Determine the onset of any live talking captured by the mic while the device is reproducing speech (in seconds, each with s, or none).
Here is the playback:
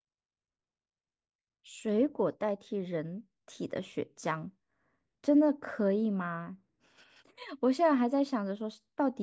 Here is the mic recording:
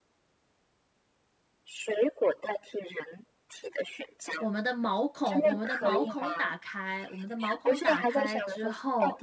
4.4 s